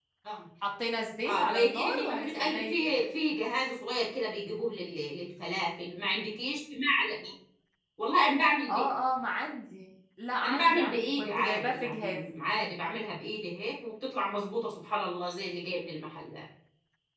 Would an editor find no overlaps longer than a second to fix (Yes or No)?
No